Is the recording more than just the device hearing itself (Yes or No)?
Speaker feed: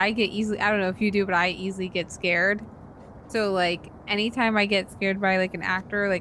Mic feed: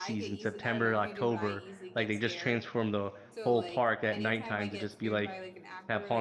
Yes